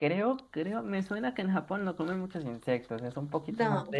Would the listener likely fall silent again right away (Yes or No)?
Yes